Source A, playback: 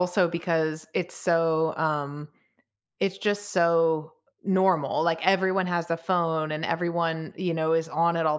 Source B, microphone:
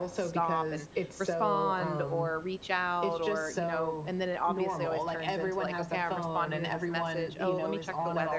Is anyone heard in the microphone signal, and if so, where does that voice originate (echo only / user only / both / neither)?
both